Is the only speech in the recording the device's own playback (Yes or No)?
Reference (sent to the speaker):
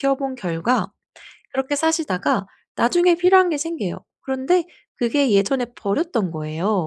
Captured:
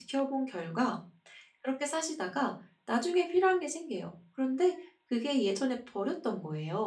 Yes